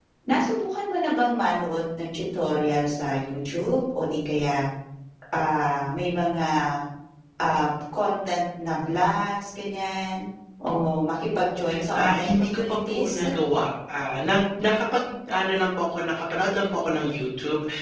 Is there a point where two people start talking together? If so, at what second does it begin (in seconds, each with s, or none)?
12.0 s